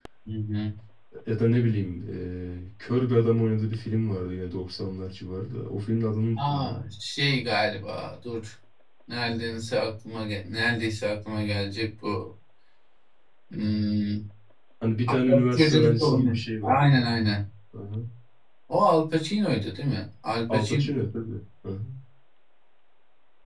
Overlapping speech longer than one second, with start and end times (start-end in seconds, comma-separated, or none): 15.5-16.8